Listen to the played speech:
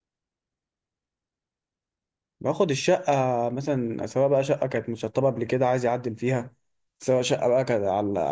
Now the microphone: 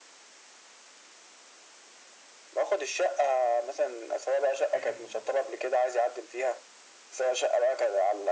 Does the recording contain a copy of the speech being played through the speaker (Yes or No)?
Yes